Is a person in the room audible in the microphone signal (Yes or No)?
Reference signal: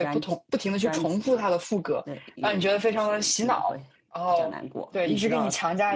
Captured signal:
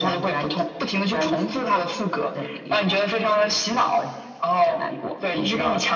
No